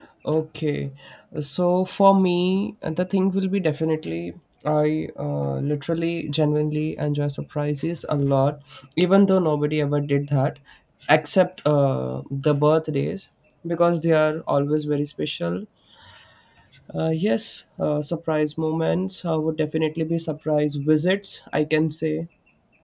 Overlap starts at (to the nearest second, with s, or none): none